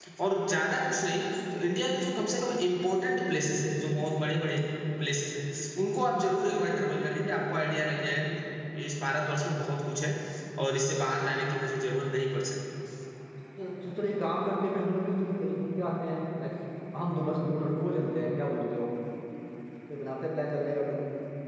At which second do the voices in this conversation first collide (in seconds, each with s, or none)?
none